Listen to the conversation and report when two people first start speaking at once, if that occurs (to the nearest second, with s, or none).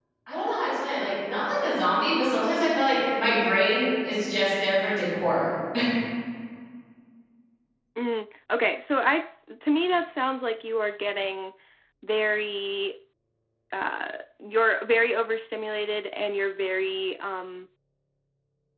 none